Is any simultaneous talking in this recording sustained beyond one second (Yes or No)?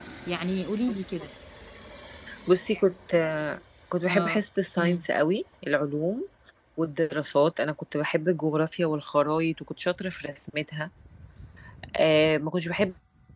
No